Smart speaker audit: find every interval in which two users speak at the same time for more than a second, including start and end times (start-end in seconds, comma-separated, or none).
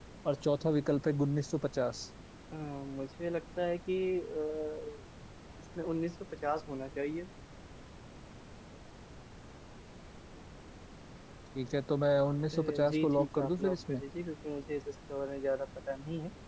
12.5-14.0